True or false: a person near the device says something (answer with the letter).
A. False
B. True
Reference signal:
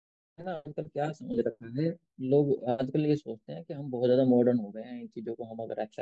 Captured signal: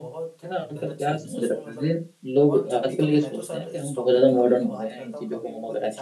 B